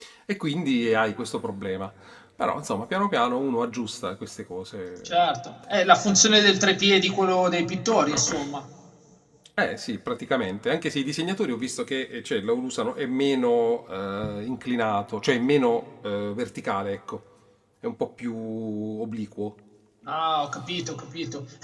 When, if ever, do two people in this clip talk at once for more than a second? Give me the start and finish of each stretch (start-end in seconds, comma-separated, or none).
none